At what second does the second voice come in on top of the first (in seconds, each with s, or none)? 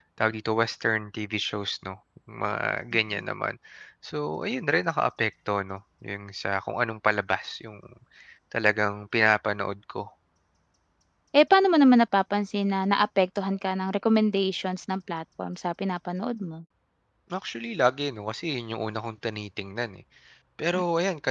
none